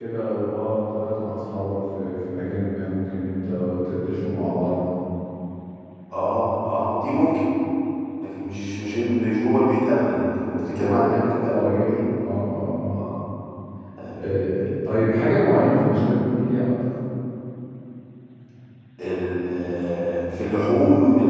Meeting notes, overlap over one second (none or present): present